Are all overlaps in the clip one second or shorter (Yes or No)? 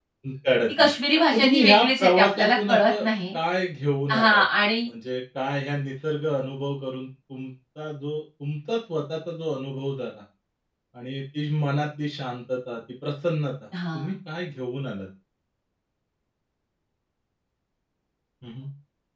No